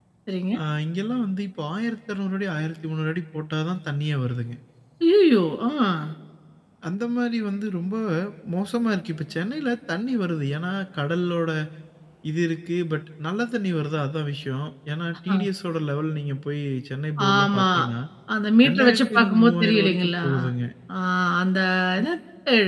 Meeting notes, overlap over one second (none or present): present